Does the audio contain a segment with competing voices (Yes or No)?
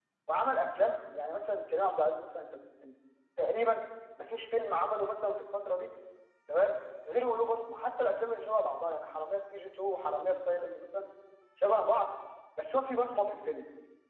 No